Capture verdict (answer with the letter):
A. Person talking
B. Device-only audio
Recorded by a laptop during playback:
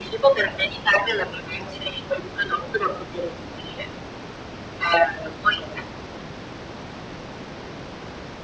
B